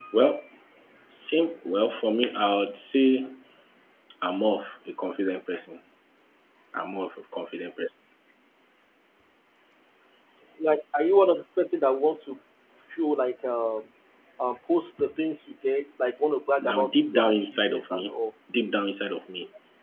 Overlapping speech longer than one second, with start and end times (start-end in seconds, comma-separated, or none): 16.6-18.1